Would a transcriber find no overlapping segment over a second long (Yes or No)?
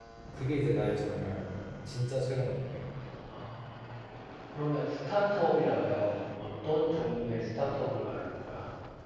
Yes